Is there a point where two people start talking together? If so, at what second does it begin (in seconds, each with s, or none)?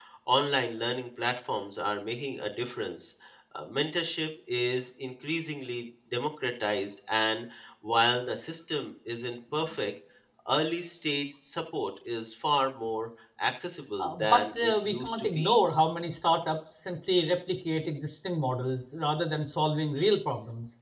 14.0 s